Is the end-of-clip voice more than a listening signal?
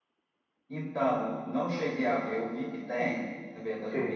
No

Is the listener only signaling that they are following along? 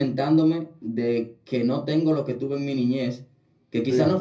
Yes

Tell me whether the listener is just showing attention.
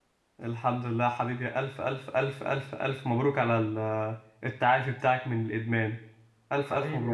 No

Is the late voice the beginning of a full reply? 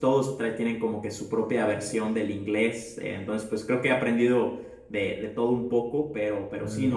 No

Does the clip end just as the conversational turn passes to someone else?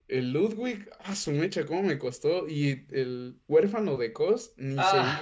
Yes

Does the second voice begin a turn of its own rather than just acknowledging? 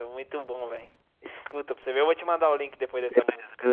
Yes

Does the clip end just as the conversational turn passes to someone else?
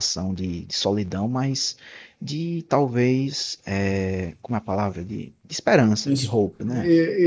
Yes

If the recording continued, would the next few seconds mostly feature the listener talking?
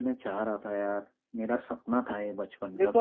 Yes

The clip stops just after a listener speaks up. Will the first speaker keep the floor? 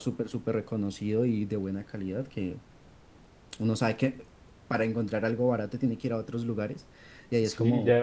No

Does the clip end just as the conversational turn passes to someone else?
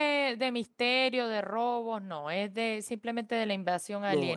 Yes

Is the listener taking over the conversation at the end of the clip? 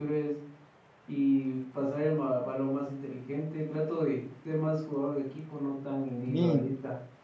Yes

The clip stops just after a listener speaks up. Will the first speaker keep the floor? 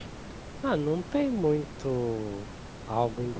Yes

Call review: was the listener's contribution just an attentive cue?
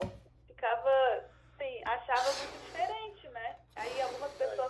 Yes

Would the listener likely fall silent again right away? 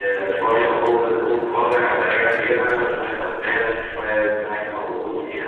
Yes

